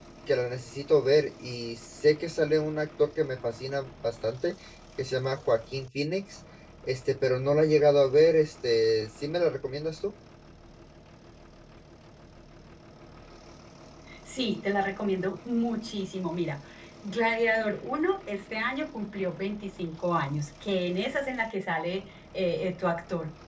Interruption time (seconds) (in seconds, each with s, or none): none